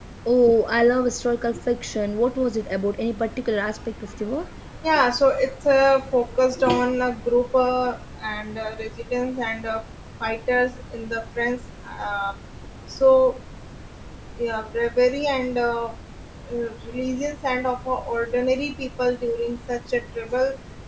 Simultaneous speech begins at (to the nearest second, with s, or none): none